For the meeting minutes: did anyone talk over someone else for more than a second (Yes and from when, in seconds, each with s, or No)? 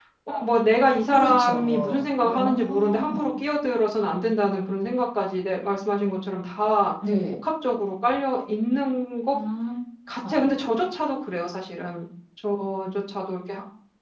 Yes, from 1.1 s